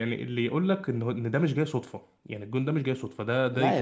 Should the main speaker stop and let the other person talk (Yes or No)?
Yes